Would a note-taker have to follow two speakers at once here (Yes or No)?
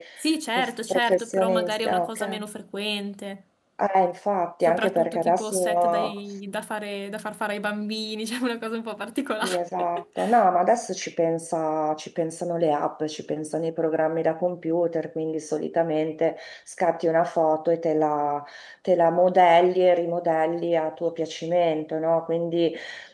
Yes